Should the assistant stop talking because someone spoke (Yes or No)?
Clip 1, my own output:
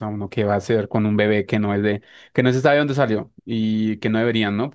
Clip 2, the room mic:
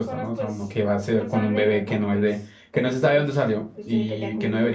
Yes